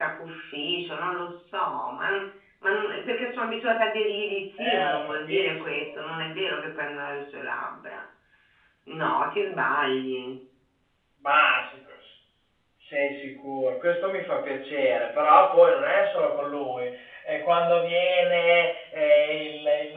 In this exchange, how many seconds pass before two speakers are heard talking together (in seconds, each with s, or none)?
4.6 s